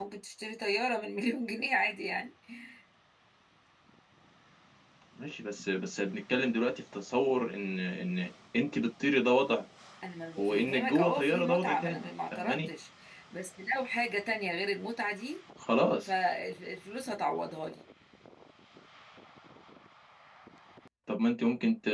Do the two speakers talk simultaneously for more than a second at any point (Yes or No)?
Yes